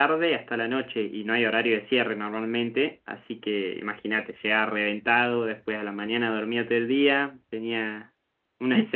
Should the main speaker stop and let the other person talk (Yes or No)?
No